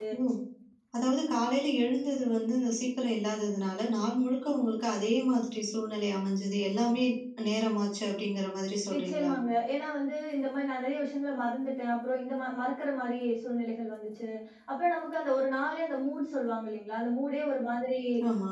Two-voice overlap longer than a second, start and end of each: none

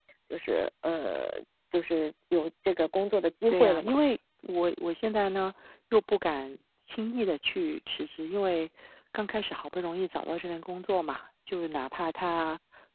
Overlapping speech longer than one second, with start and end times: none

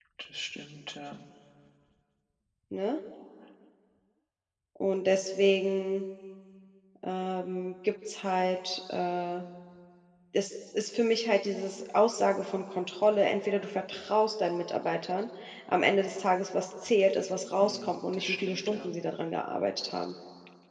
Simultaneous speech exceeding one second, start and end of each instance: 17.6-18.9

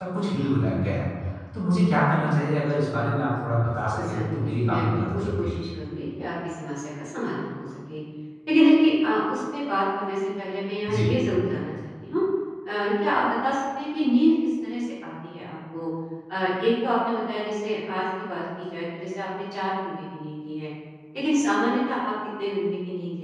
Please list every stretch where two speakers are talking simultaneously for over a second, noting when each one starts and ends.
4.0-5.5

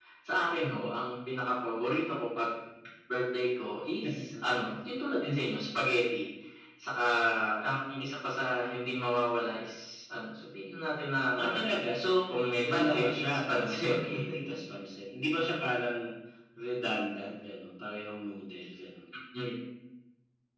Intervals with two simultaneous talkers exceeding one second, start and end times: 12.7-13.9

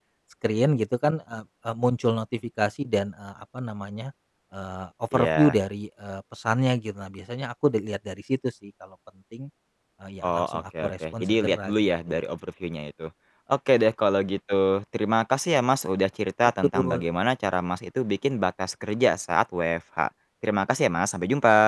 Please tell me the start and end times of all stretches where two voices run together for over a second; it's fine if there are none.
10.2-12.2

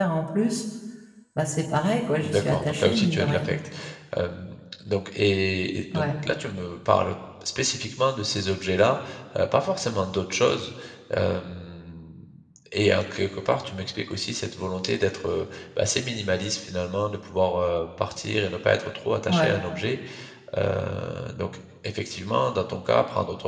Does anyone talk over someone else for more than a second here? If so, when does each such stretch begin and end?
2.2-3.5

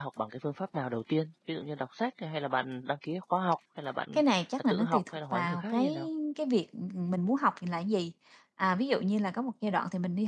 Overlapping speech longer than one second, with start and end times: 4.7-6.0

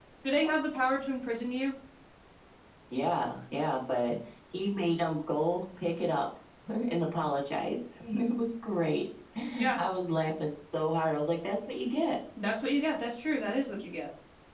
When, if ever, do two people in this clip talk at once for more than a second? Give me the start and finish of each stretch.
none

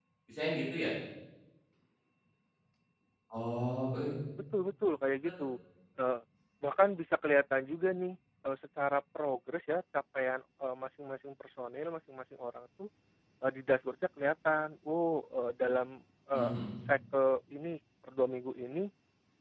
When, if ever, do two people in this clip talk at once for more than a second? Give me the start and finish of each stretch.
none

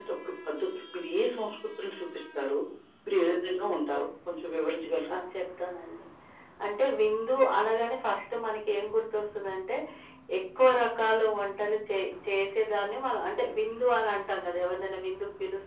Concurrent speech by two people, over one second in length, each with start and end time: none

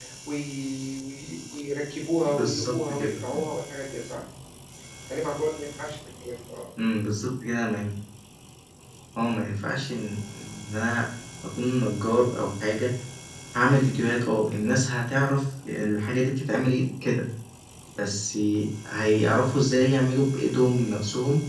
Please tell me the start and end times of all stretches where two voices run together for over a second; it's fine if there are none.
2.2-3.4

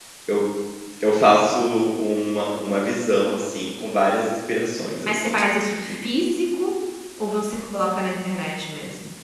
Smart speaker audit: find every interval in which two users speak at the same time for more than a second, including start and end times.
none

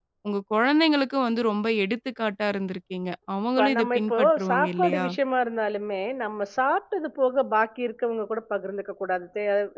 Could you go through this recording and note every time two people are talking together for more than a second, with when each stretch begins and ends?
3.6-5.0

